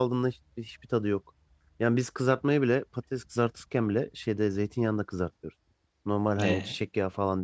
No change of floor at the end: Yes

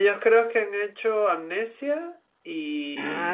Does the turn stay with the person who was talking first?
No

